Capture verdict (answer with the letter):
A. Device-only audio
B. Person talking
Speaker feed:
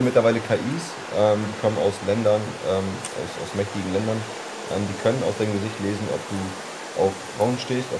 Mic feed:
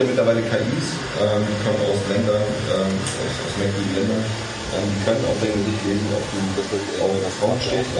B